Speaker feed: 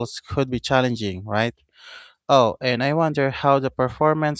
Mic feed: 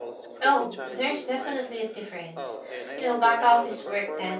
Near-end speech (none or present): present